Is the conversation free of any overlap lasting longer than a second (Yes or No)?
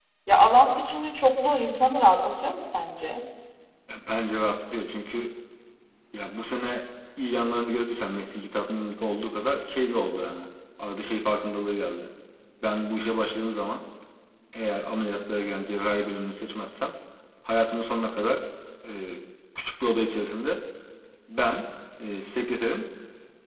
Yes